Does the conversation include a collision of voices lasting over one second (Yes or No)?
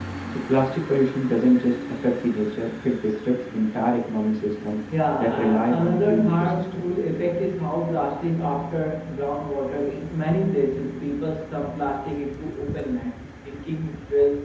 Yes